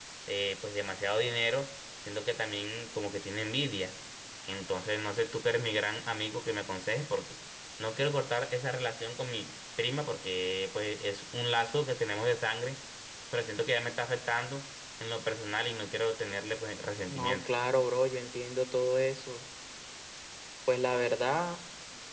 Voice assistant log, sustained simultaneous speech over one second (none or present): none